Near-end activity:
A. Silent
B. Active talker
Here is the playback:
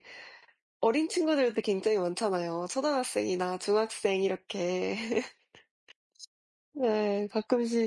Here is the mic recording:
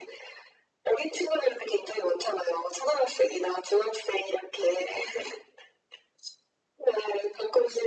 A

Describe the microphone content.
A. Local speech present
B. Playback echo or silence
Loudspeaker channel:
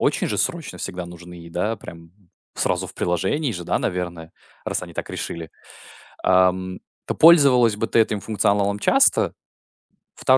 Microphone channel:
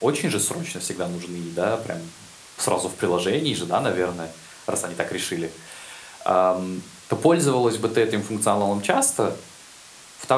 B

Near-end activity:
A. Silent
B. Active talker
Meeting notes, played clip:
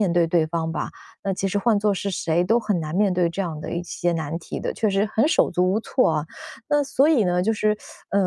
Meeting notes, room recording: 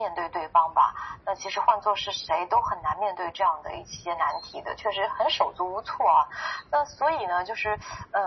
A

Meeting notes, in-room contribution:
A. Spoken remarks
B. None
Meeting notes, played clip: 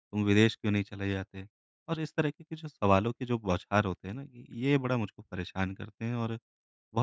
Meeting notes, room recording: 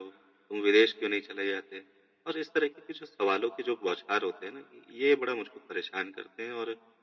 B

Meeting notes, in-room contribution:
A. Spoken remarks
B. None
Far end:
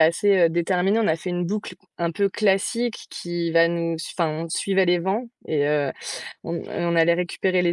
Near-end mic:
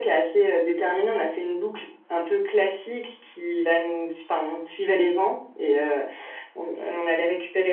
B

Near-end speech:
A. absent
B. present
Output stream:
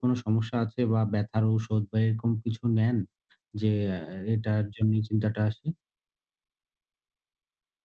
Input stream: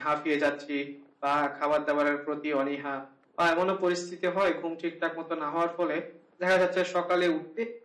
B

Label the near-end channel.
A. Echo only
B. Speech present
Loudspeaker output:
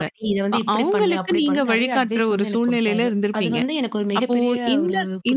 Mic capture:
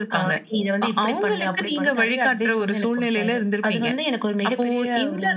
A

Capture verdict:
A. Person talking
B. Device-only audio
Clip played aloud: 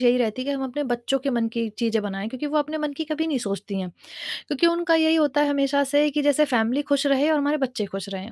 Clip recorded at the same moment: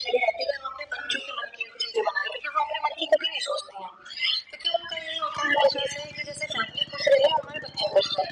B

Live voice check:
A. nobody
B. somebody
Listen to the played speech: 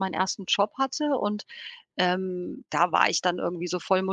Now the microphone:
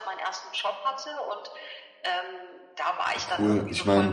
B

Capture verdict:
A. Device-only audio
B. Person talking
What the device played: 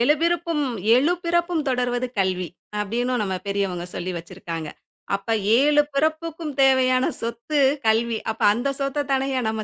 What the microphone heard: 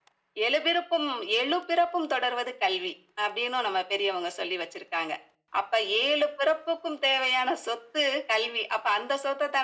A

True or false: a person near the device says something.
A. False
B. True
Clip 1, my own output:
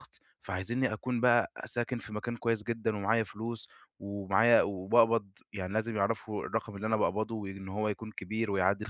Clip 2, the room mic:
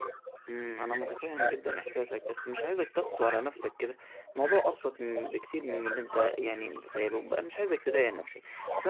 B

